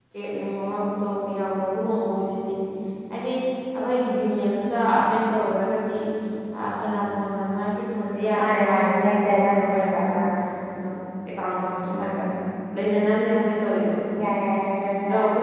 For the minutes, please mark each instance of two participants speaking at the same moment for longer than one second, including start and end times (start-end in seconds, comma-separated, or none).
8.4-9.9